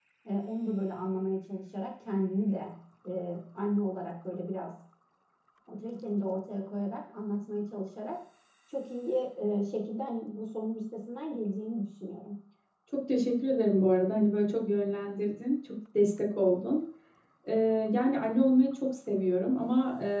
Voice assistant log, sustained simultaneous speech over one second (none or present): none